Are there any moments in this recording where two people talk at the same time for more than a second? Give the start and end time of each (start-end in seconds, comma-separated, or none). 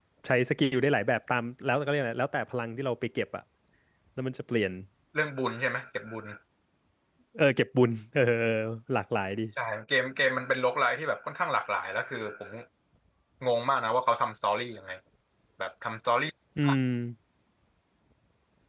none